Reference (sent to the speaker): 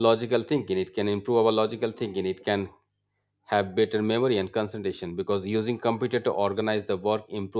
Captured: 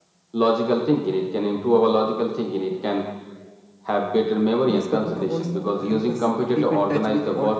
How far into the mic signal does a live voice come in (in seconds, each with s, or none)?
4.7 s